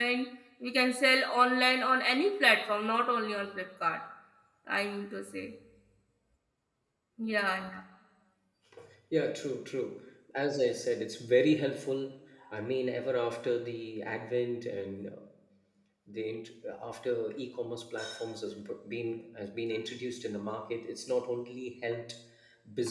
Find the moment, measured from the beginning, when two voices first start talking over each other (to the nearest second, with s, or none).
none